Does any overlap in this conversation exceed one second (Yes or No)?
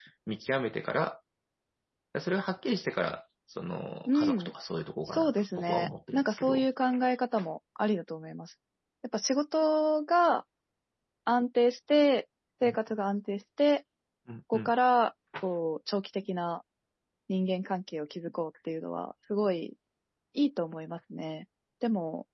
Yes